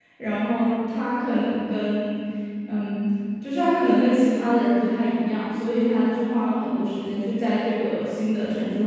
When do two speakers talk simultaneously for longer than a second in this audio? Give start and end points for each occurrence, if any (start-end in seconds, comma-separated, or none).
none